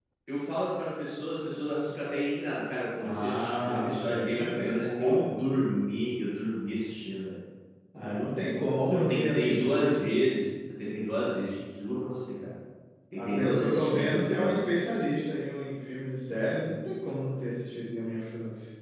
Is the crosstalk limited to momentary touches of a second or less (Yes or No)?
No